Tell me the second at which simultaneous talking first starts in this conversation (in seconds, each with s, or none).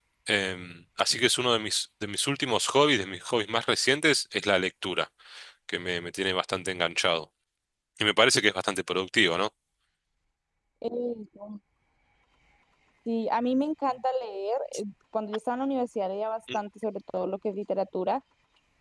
none